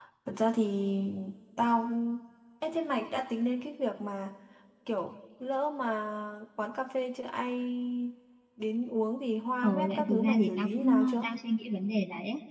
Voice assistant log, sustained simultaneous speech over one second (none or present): present